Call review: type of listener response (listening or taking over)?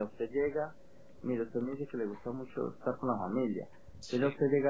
listening